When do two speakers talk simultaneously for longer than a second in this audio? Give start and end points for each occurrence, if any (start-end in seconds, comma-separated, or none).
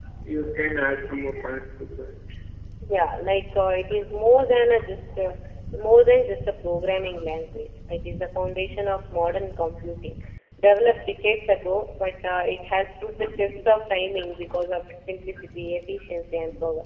none